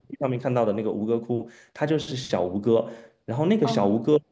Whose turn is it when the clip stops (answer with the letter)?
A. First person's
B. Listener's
A